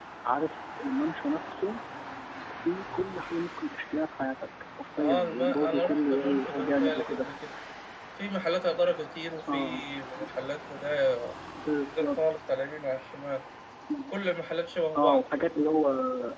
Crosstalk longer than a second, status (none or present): present